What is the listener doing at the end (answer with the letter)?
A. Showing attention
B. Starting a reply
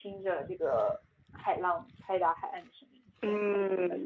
B